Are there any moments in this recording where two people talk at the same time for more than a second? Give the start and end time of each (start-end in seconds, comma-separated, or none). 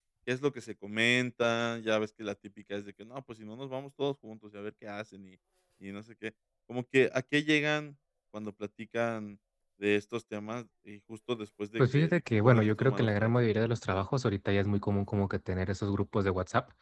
11.8-13.3